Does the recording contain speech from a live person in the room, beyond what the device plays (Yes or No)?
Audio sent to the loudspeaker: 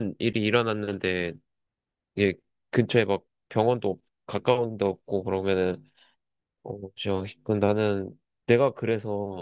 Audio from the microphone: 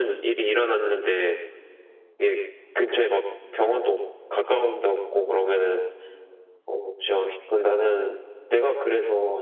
No